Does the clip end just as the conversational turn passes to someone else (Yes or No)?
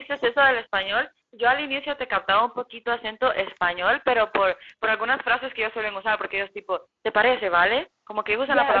Yes